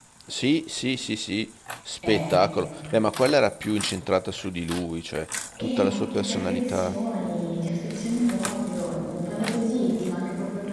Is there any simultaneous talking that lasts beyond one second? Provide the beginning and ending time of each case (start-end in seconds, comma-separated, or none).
5.6-7.0